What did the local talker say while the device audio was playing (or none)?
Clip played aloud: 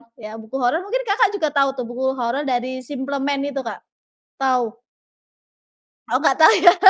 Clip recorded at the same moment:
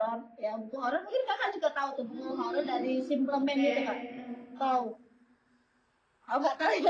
Mmm, oke. Heeh.